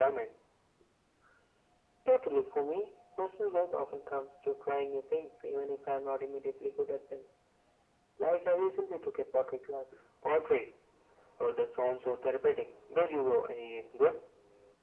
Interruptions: none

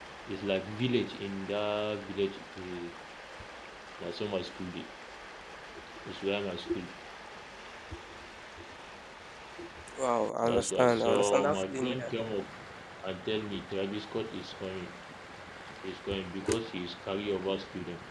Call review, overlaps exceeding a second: present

